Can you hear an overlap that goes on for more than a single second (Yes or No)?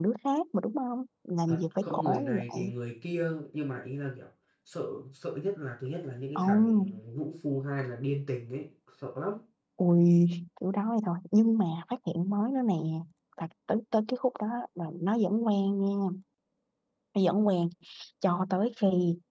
Yes